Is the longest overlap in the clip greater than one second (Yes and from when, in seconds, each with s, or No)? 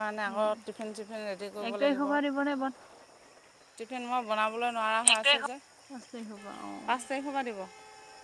No